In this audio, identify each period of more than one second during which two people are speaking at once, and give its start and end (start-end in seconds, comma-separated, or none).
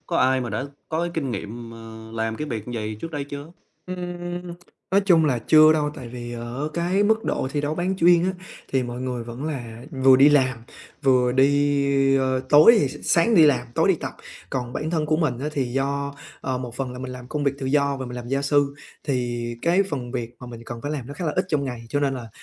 none